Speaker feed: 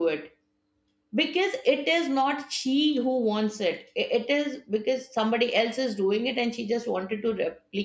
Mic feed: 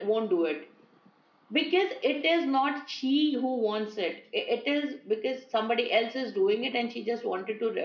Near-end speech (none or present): none